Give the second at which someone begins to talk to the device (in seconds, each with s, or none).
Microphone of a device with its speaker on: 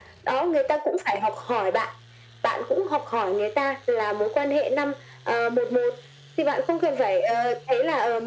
none